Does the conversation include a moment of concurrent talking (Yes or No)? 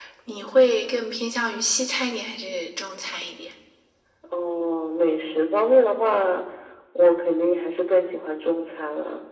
No